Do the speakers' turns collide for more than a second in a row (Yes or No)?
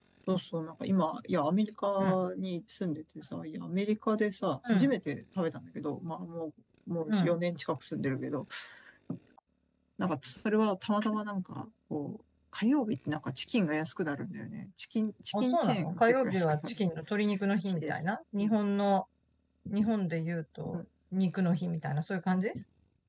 Yes